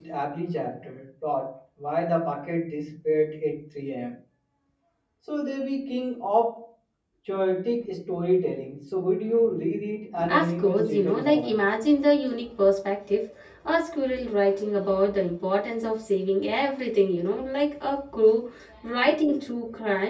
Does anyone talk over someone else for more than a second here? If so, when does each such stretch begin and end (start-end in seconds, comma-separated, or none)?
10.3-11.6